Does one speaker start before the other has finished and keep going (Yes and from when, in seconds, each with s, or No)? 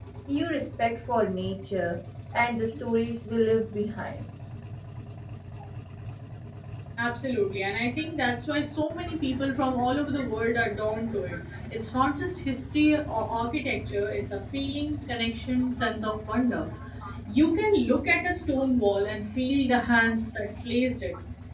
No